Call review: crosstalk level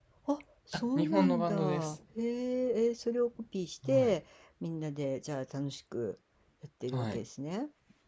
present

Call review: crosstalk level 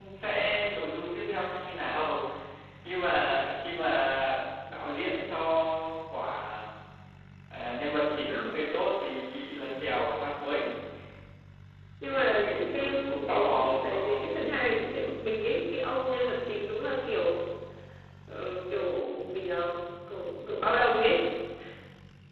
present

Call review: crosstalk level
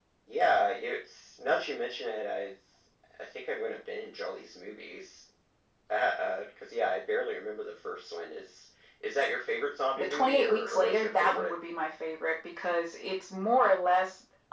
present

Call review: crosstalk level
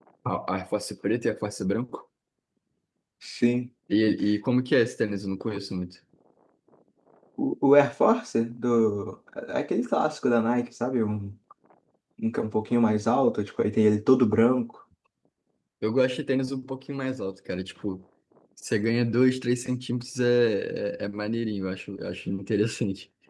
none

